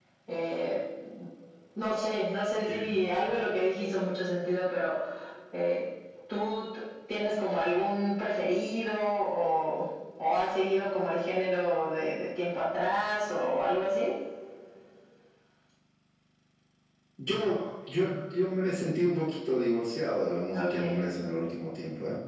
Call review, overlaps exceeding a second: none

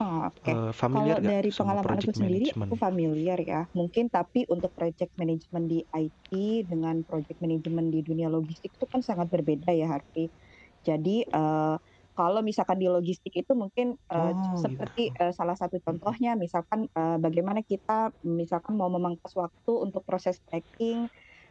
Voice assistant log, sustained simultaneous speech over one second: present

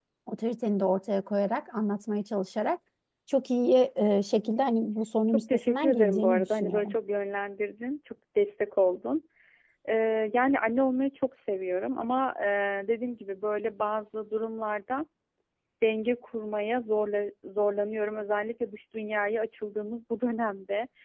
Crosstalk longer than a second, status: present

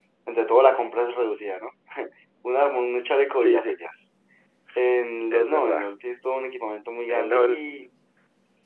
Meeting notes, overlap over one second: none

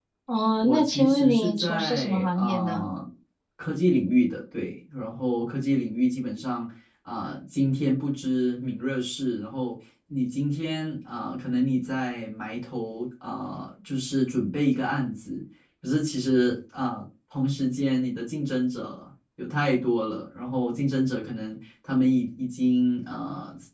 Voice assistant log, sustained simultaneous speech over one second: present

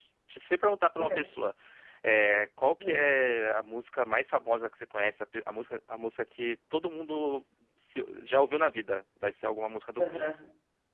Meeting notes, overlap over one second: none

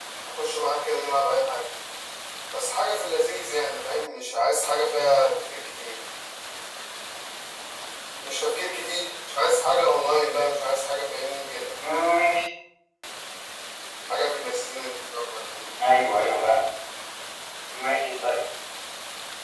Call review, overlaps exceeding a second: none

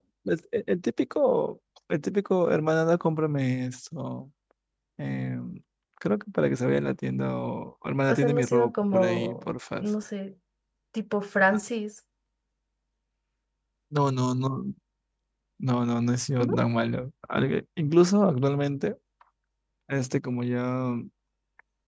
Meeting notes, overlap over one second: present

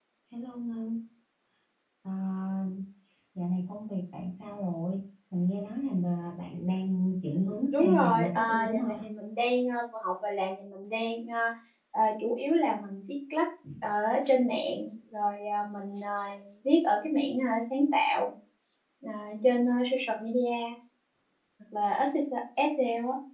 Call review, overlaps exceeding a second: present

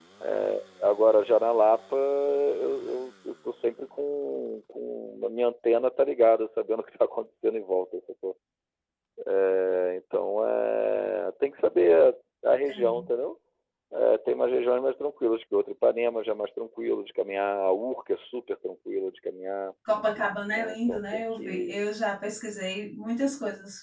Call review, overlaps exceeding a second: present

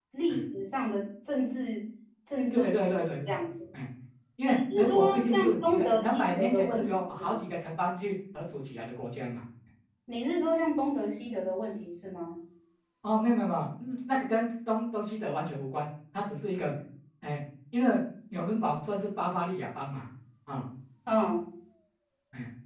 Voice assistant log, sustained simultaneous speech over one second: present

